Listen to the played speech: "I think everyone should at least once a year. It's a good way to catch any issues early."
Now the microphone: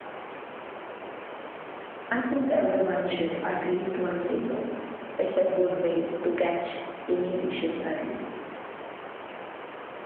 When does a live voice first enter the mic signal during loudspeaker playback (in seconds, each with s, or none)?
none